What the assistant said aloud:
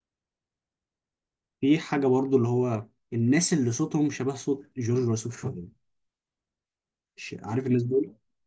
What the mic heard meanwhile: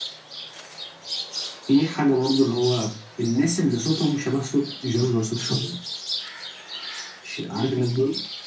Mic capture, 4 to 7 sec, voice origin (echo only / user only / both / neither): echo only